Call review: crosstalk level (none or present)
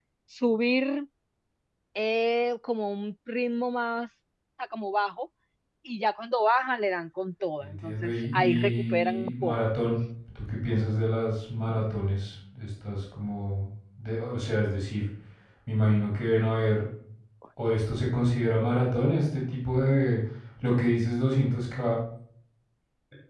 present